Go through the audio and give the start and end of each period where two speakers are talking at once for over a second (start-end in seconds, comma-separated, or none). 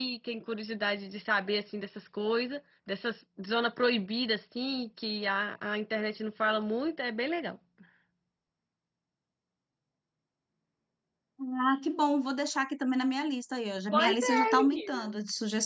13.9-15.1